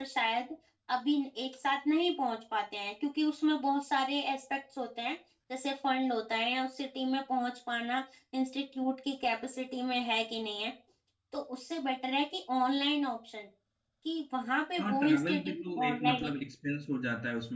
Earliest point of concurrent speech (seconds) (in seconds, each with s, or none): 14.8 s